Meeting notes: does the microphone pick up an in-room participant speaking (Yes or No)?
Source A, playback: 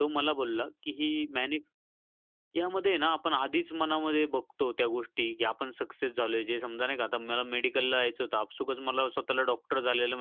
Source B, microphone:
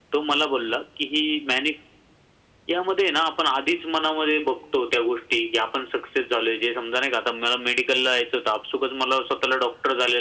No